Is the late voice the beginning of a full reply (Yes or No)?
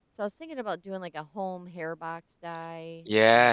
Yes